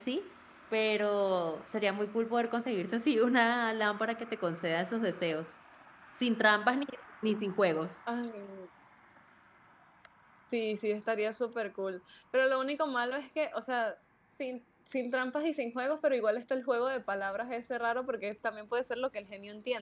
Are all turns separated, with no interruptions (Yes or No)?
Yes